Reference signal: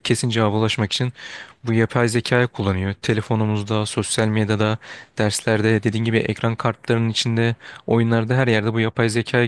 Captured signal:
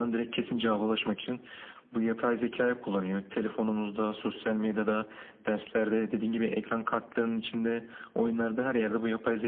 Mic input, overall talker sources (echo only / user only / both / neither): echo only